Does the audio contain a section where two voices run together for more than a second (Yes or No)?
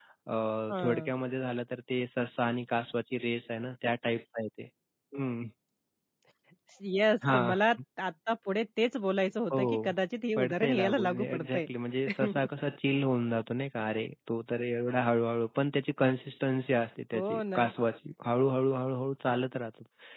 Yes